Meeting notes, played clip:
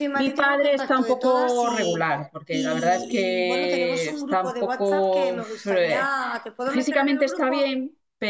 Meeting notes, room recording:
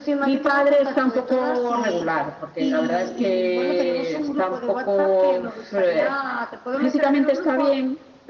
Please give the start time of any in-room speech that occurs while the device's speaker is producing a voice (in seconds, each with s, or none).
none